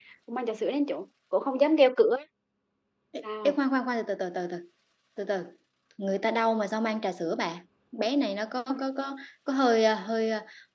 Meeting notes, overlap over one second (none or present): none